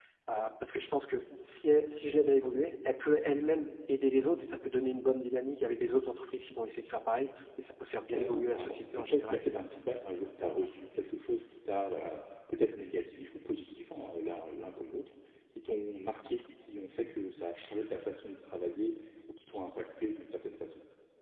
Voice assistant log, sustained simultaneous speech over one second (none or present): present